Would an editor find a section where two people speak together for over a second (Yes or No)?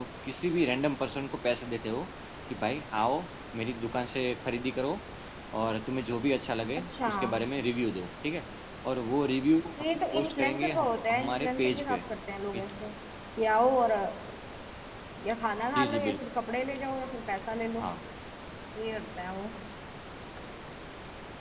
Yes